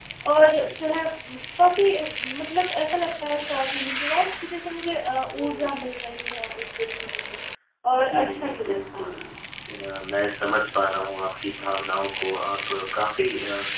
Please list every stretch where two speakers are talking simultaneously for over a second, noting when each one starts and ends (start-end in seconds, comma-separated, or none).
7.9-9.1